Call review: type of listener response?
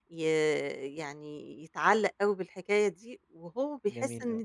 listening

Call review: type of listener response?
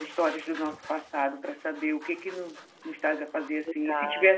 listening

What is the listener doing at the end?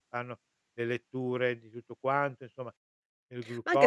taking over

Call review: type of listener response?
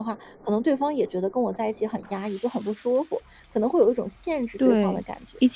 taking over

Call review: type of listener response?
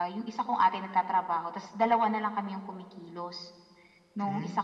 listening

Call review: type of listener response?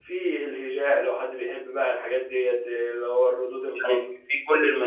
taking over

